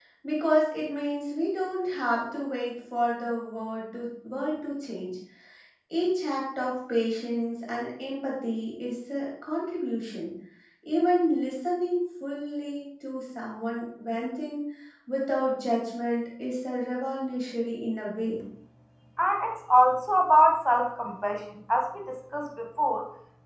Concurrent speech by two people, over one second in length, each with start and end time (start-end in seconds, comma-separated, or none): none